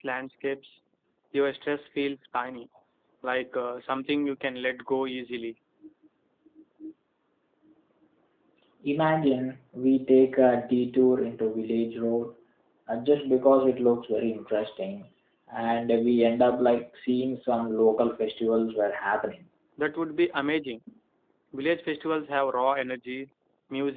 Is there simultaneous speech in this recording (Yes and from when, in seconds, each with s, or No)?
No